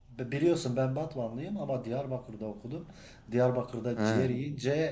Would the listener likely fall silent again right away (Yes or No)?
Yes